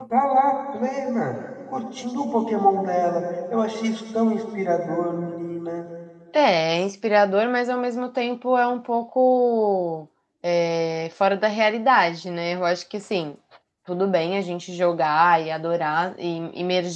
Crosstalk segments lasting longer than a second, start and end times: none

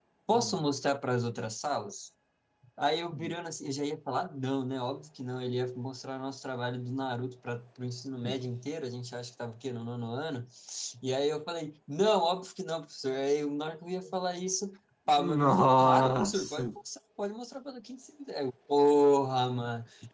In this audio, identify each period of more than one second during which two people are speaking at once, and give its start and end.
15.4-16.6

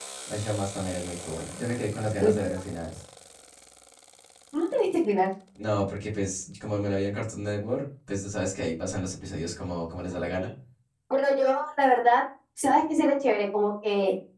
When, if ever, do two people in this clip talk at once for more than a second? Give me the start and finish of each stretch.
none

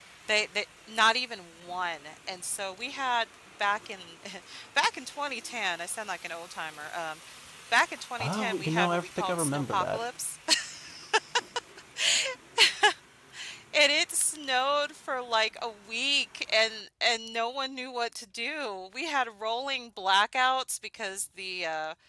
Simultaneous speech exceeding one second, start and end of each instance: 8.2-10.0

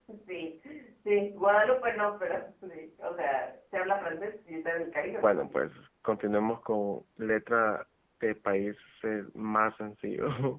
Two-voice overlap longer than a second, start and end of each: none

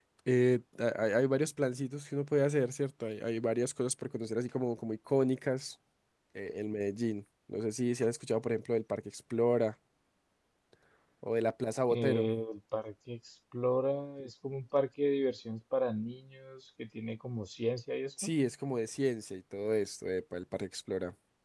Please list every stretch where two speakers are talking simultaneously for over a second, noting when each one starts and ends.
none

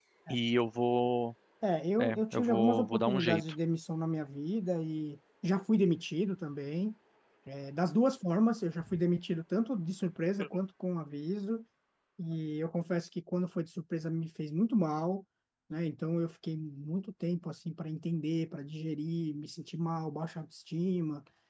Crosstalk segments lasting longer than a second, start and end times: 2.0-3.4

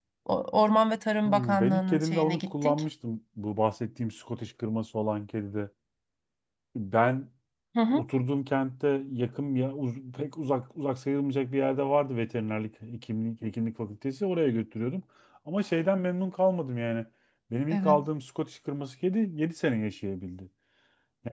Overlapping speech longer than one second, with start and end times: 1.2-2.8

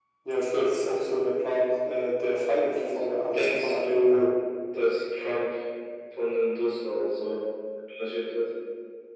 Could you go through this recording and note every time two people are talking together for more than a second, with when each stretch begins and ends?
2.7-4.3

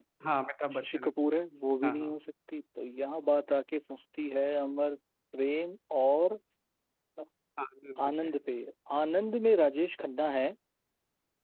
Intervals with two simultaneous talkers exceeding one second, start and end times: none

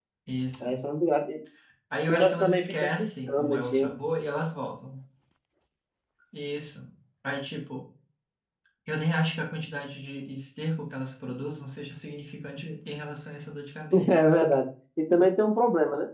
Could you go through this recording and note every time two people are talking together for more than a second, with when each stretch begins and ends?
2.1-3.9

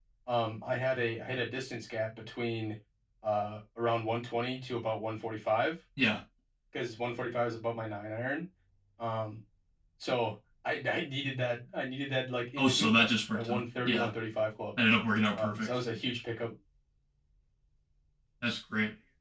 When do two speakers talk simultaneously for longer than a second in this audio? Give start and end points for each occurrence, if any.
12.6-14.1

